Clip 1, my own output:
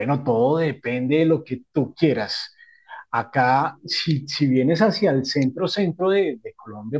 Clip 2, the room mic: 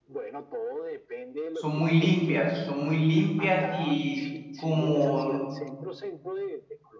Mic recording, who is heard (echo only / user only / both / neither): both